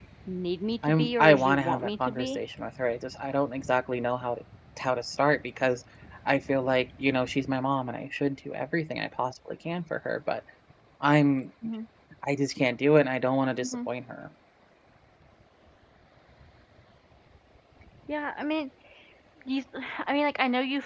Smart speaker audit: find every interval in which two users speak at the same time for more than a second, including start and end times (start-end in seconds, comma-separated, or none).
0.8-2.4